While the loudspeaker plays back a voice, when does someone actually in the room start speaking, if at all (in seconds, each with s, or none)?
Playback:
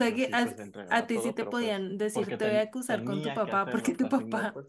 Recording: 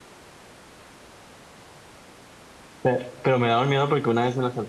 2.8 s